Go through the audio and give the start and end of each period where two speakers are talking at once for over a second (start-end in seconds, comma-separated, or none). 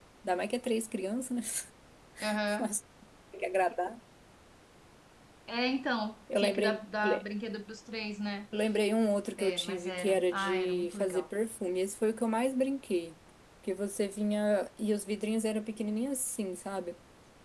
9.4-11.2